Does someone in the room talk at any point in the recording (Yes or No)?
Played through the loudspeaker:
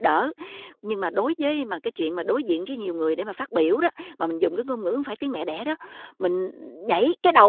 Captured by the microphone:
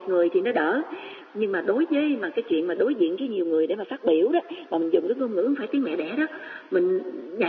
No